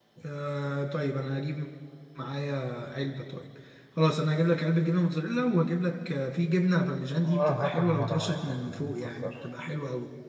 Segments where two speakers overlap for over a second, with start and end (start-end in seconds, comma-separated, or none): 7.2-9.3